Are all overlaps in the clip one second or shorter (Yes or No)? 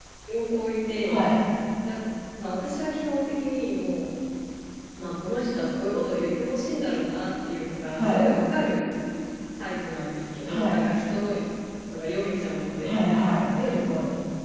Yes